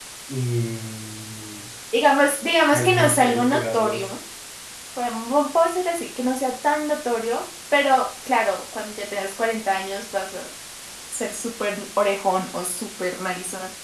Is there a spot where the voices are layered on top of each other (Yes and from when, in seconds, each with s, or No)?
Yes, from 2.6 s